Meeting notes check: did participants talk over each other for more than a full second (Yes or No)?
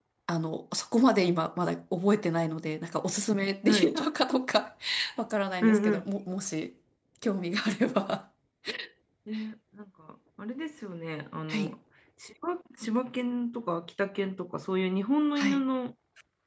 No